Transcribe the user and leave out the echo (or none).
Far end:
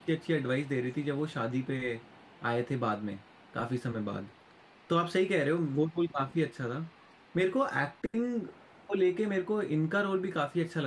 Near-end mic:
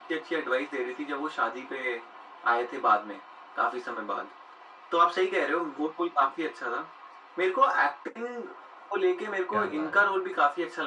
क्या बात है